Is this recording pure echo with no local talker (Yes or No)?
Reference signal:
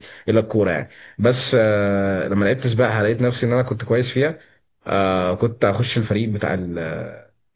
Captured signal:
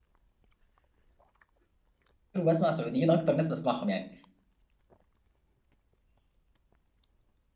No